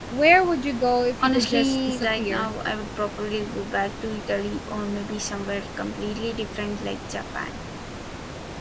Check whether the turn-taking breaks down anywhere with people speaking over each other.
Yes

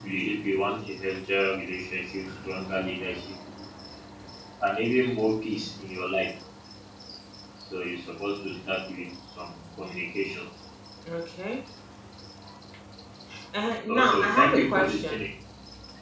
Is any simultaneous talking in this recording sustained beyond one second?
Yes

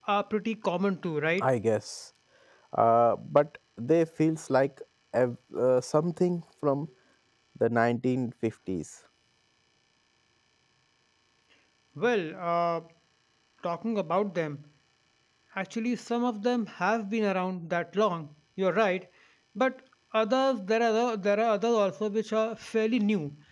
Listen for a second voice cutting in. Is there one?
No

